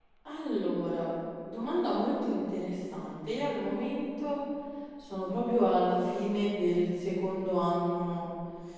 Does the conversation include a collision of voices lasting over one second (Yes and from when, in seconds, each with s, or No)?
No